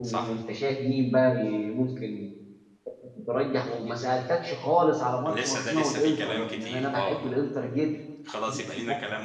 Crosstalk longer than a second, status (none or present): present